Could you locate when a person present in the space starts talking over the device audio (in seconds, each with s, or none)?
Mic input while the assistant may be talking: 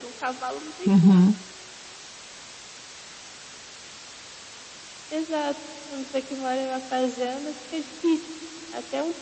0.9 s